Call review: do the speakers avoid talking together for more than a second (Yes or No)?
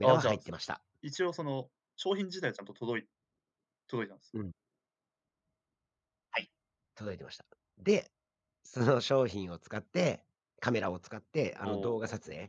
Yes